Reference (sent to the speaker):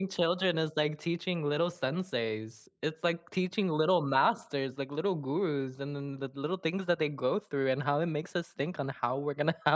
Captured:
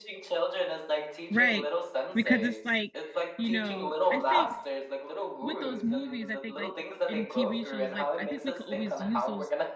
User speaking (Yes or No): Yes